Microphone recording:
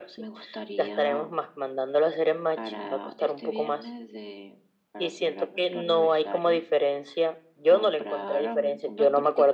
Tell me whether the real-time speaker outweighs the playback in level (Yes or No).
No